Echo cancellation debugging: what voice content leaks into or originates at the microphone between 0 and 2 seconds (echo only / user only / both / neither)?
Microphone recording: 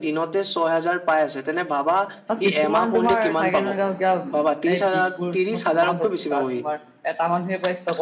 echo only